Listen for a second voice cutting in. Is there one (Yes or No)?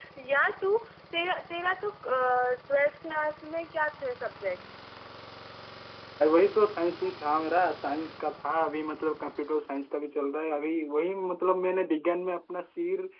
No